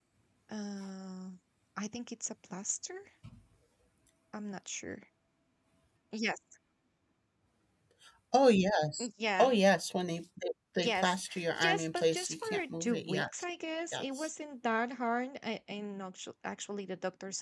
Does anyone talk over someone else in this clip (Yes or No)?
Yes